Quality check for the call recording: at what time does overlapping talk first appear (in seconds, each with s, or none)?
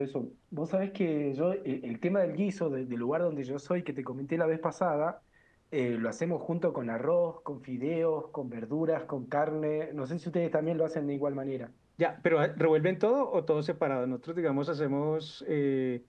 none